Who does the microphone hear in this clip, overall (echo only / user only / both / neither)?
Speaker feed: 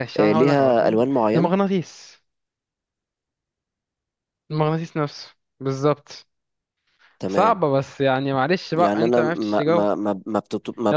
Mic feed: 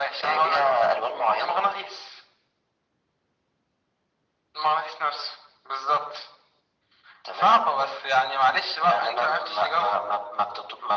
echo only